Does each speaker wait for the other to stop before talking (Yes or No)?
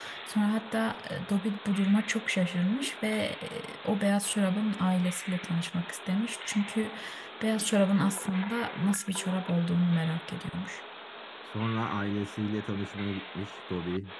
Yes